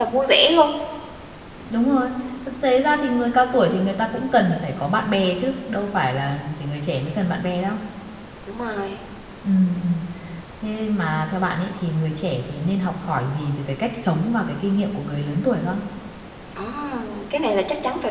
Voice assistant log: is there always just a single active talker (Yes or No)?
Yes